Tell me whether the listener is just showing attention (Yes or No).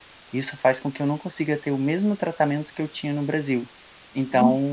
No